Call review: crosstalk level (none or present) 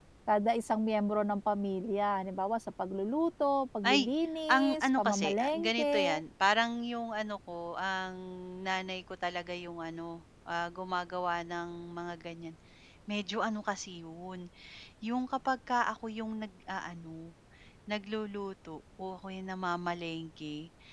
present